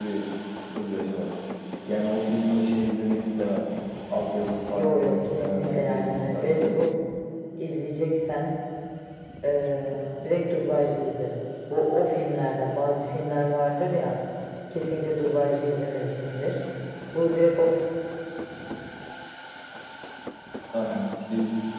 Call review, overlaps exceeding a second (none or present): present